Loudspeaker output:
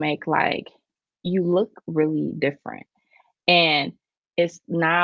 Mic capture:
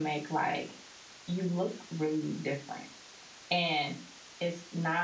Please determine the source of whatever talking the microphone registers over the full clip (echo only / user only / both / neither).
echo only